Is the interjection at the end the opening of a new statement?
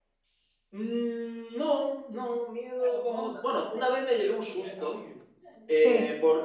No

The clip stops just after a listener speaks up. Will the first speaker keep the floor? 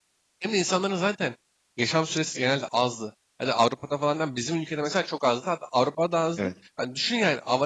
Yes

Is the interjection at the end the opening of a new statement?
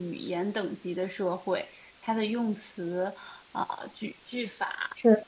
No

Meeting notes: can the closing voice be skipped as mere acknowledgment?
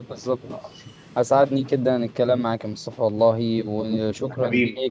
Yes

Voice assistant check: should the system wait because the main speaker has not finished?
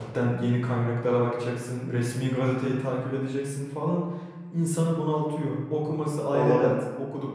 Yes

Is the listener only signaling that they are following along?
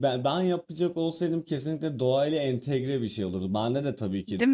Yes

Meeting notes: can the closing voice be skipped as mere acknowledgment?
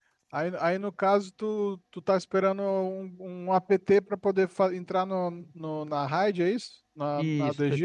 No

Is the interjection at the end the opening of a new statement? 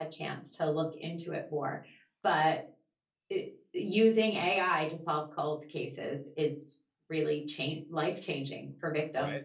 Yes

